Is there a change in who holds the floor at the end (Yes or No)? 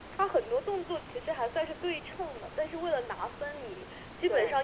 No